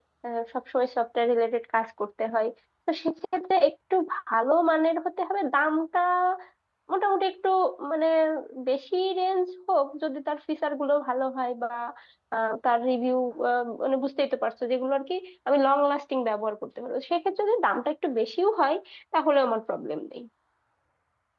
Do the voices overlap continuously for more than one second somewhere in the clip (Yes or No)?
No